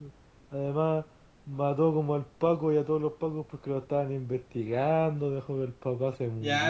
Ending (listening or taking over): taking over